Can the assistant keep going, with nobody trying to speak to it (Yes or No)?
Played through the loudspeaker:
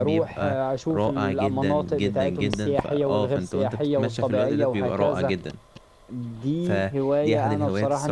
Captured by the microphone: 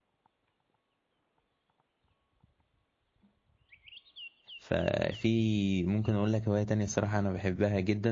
No